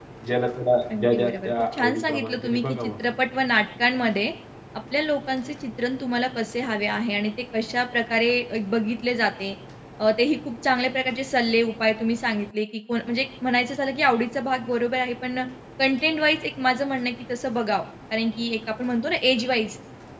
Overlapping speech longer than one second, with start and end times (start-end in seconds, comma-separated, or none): 1.0-2.9